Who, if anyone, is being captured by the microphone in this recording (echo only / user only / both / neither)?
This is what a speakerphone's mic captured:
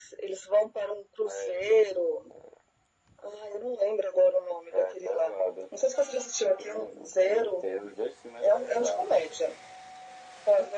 echo only